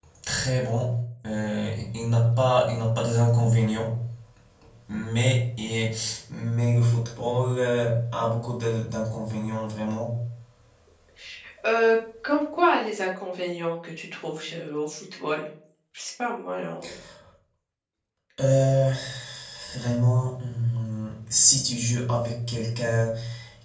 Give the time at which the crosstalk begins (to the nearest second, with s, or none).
none